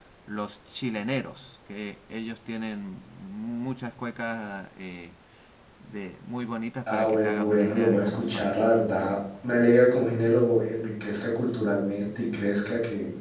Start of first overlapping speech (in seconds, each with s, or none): 6.9 s